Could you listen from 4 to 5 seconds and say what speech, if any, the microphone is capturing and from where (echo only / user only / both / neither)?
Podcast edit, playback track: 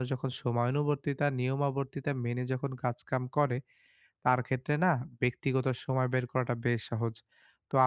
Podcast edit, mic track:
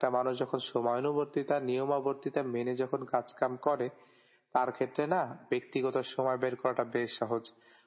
echo only